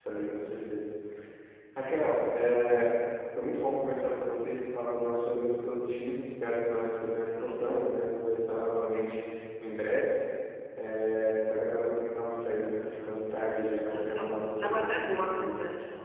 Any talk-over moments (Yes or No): Yes